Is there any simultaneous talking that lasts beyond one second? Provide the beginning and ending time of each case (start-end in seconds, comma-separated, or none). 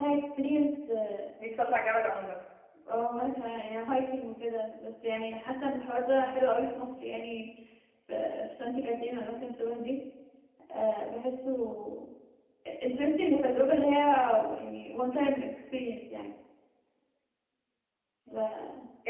none